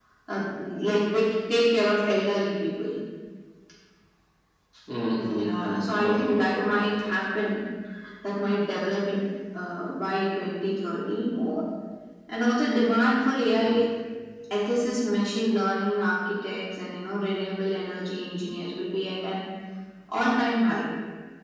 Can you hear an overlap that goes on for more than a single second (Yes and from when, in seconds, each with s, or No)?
Yes, from 5.2 s